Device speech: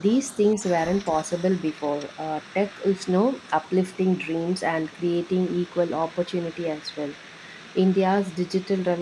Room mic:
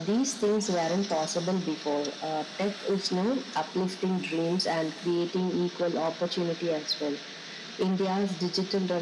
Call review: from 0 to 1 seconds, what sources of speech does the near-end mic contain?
echo only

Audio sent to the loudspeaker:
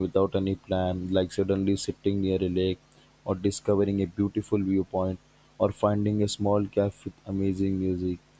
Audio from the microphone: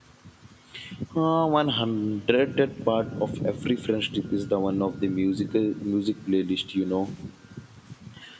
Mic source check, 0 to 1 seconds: neither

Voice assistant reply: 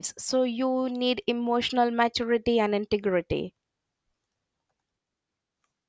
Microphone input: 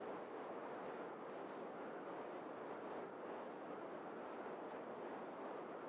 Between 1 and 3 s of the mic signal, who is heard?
neither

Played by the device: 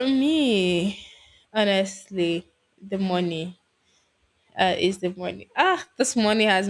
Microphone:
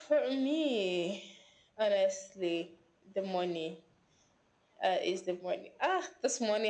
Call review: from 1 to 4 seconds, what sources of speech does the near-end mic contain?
echo only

